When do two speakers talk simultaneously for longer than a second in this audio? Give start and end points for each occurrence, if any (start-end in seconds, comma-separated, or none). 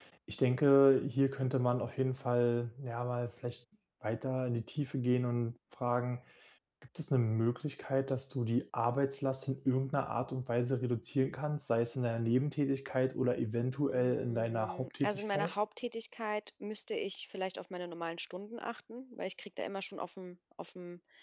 13.9-15.5